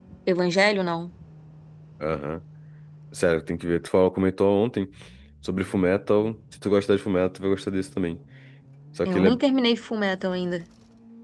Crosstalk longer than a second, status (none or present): none